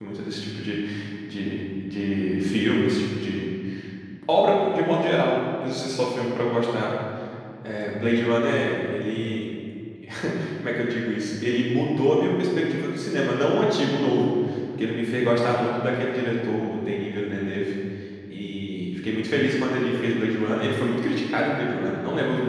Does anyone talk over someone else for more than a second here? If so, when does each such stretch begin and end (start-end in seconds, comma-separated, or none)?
none